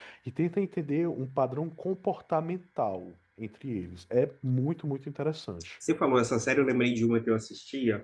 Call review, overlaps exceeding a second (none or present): none